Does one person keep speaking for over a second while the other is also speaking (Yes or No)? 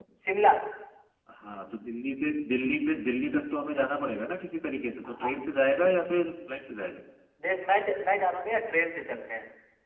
No